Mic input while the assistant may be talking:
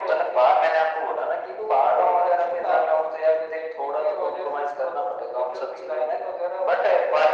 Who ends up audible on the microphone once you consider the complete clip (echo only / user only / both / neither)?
echo only